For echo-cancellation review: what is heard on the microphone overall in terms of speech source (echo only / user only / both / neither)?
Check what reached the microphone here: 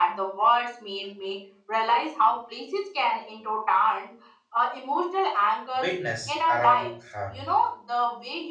both